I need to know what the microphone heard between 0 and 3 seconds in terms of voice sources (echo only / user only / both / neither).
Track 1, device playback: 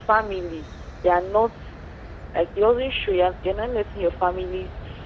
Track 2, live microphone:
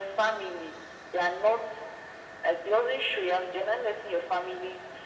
echo only